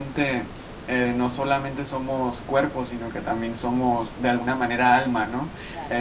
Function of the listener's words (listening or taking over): taking over